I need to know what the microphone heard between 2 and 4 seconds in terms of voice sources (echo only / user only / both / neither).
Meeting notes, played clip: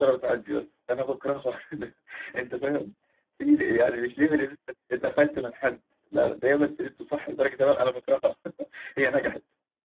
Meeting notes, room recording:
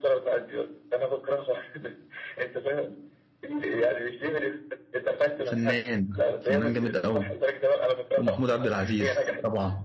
echo only